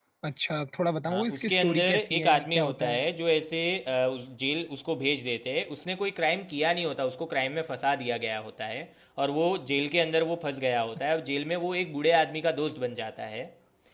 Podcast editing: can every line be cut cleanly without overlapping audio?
No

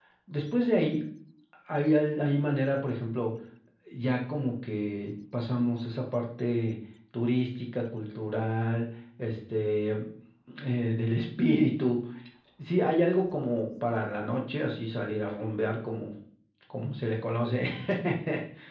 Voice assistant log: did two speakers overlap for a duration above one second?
No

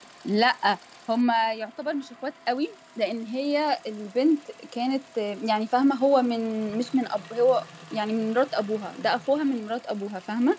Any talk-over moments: No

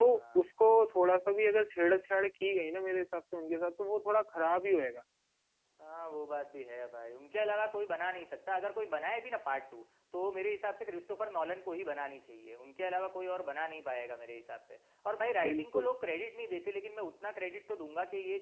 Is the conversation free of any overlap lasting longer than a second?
Yes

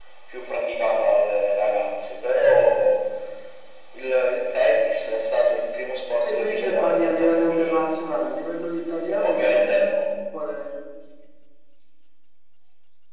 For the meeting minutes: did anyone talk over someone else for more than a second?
Yes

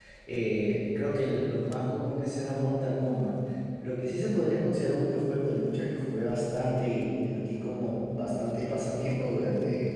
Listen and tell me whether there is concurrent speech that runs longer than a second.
No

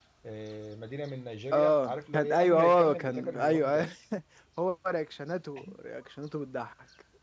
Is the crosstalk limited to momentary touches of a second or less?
No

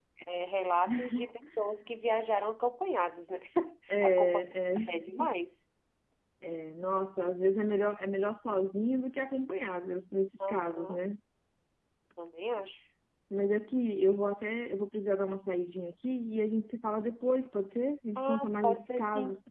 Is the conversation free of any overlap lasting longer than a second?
No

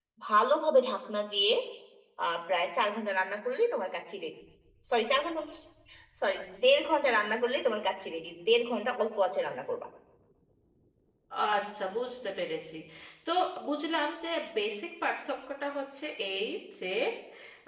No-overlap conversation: Yes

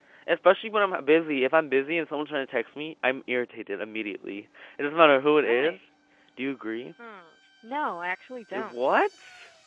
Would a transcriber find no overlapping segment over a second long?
Yes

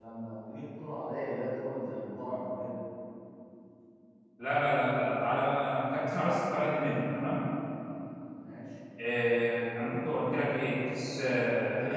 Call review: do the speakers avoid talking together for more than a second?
Yes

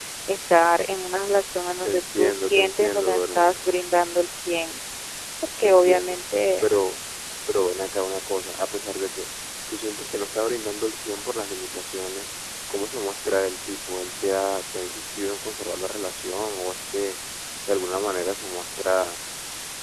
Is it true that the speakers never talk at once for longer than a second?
No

